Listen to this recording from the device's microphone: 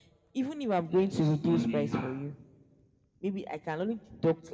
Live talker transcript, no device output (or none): like a stoned in heart,